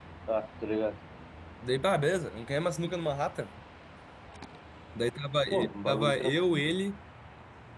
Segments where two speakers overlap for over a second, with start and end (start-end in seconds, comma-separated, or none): 5.5-6.7